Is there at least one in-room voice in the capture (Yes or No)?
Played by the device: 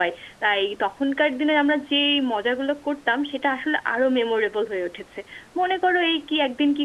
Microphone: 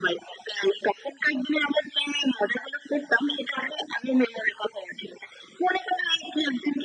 No